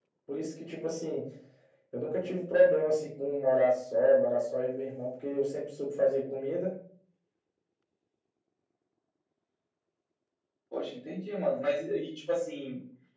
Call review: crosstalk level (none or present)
none